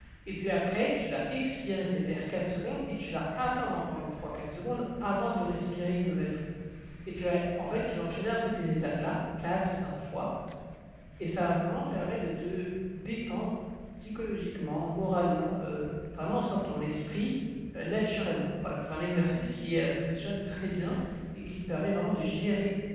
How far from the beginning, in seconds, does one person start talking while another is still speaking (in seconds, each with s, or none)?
none